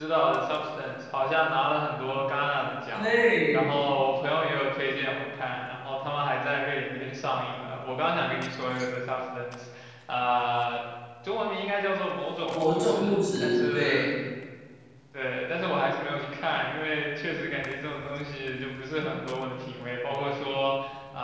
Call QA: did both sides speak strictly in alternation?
No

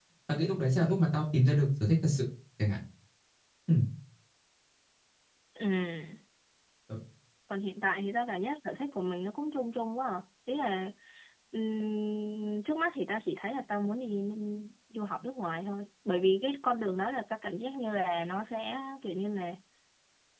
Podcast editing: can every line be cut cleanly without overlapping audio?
Yes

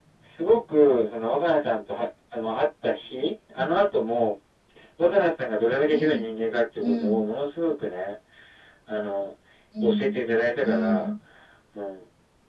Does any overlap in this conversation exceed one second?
No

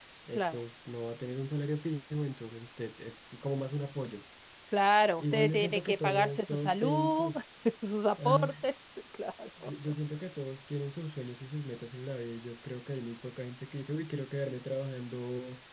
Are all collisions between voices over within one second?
No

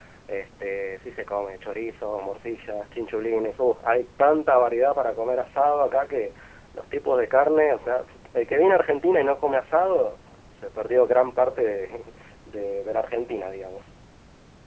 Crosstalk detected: No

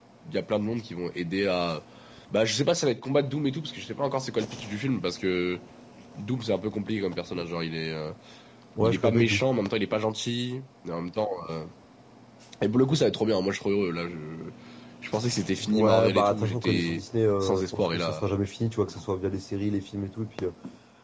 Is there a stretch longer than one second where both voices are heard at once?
Yes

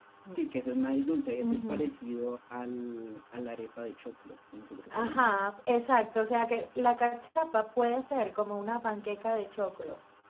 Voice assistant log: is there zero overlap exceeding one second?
Yes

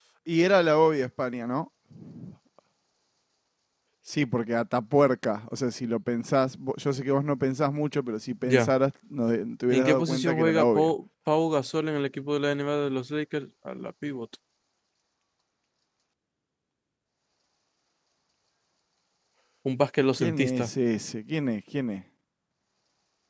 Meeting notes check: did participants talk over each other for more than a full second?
Yes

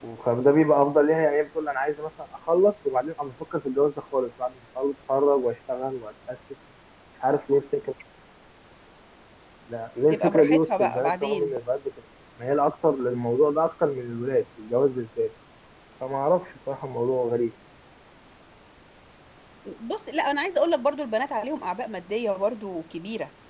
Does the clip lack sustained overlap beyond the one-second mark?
No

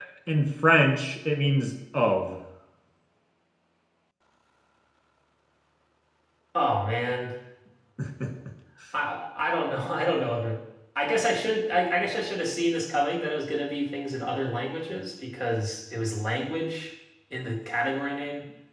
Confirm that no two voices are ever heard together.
Yes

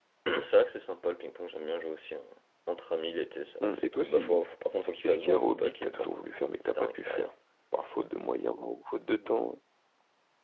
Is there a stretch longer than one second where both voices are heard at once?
Yes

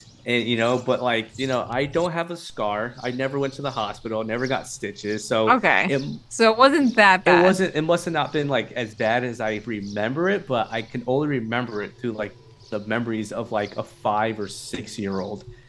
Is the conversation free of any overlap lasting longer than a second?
Yes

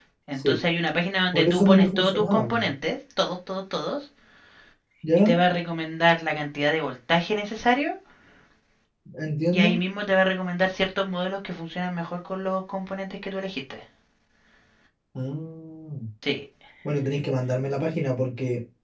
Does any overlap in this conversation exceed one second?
Yes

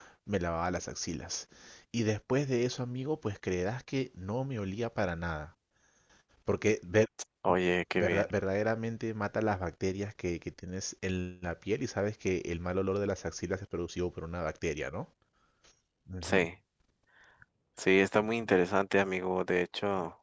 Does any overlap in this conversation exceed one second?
No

